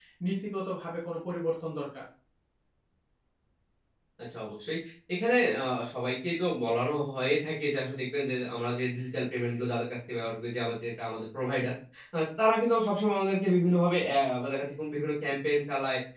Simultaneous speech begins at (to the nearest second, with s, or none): none